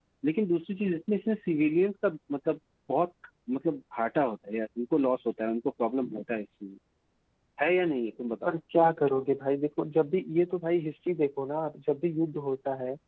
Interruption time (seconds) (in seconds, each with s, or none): none